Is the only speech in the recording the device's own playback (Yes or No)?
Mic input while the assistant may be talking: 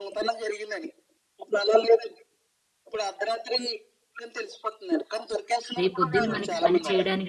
No